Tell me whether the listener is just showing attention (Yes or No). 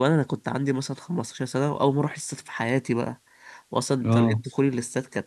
Yes